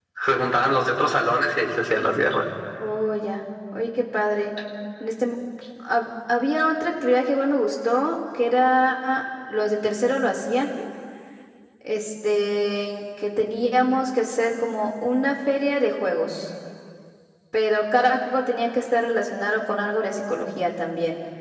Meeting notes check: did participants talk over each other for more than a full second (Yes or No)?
No